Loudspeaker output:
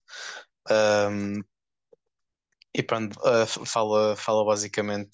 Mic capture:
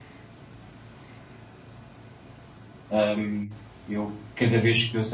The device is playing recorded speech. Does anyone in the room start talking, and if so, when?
2.9 s

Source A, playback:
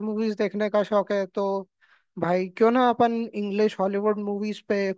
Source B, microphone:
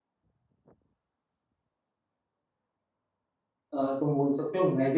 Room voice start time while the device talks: 3.7 s

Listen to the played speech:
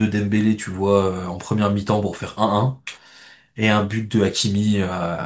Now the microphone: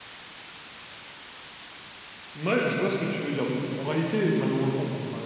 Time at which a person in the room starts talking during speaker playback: 2.3 s

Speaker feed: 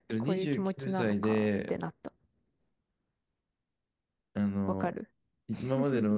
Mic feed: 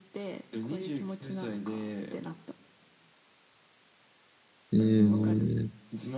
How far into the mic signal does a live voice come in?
4.7 s

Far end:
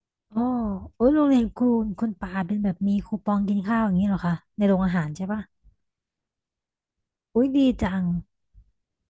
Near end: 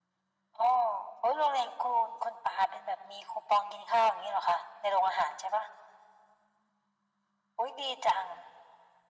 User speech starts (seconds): none

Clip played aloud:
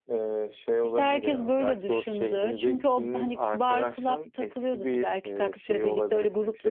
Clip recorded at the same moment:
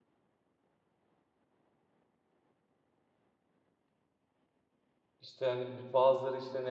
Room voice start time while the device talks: 5.2 s

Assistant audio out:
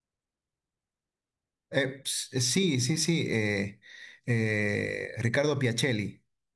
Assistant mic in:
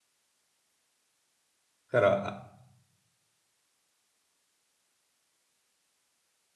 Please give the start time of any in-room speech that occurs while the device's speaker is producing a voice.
1.9 s

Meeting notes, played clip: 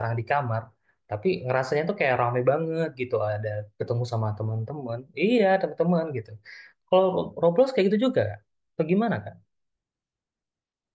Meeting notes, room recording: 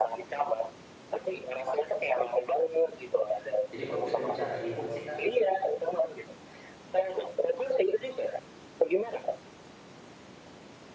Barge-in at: 3.7 s

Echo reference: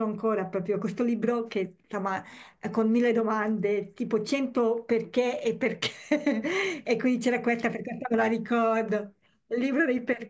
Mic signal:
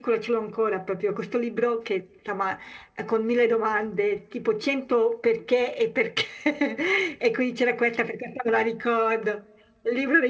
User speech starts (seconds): none

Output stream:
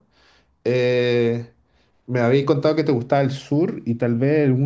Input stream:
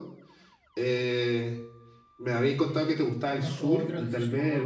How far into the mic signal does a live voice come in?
2.5 s

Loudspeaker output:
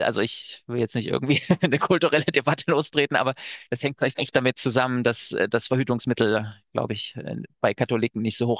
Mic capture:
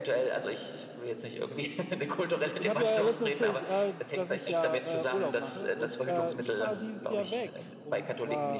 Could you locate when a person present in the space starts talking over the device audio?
2.6 s

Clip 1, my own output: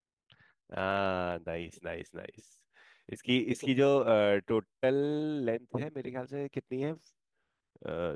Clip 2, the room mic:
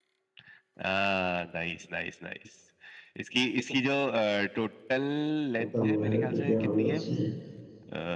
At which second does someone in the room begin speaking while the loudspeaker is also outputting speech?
5.6 s

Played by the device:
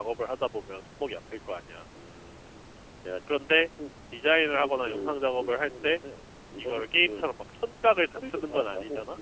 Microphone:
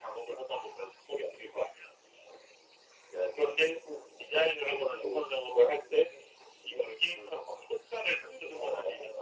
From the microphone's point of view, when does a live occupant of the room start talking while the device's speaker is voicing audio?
none

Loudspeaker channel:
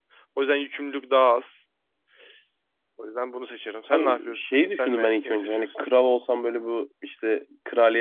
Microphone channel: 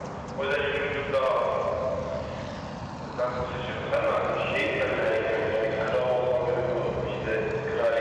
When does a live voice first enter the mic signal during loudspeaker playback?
none

